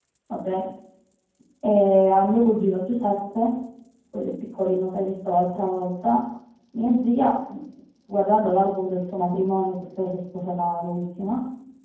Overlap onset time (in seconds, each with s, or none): none